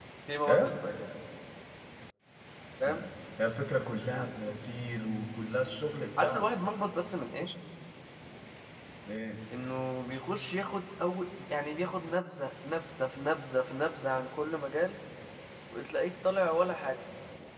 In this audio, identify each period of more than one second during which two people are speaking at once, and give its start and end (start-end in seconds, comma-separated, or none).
none